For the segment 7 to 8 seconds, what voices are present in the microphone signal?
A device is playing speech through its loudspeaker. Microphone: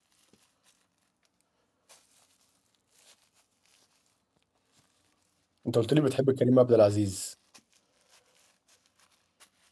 user only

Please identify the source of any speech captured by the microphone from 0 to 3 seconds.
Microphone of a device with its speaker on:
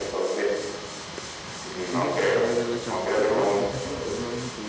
both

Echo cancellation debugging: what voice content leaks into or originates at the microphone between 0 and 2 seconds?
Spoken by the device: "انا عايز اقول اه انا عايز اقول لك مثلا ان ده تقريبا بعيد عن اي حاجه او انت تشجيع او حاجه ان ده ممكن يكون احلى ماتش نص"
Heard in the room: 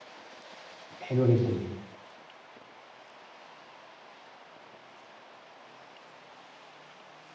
user only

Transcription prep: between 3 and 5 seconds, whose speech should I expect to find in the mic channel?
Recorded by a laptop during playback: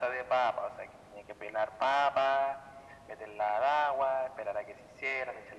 echo only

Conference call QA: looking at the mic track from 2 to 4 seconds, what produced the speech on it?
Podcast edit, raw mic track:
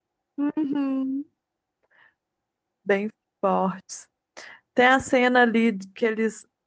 user only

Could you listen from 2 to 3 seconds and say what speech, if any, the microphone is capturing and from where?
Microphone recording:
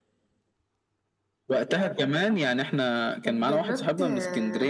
echo only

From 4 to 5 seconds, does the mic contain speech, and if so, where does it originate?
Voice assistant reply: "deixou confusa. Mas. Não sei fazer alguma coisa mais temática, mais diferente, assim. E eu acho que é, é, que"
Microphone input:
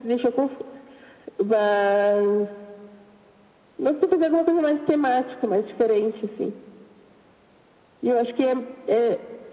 echo only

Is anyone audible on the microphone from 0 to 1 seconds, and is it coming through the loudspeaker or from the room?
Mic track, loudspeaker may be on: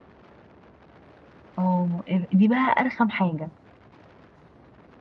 neither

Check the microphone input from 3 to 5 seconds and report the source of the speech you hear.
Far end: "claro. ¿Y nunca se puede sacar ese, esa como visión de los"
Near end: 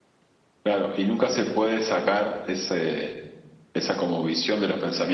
echo only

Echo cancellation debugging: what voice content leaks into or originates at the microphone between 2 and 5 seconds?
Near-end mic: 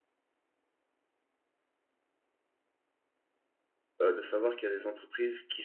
user only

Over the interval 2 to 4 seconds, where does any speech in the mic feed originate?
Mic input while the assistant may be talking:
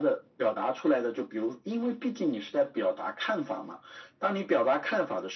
echo only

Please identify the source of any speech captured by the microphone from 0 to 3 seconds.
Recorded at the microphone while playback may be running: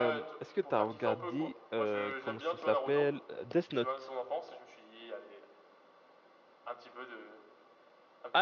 both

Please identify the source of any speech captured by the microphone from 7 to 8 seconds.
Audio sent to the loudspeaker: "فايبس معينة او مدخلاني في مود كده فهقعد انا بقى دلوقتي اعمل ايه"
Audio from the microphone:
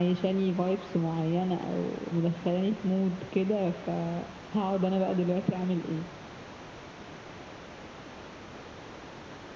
neither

